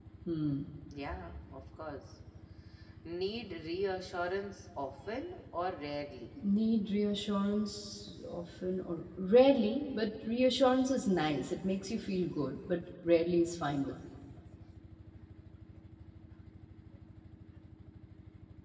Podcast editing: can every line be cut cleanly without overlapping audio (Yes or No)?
Yes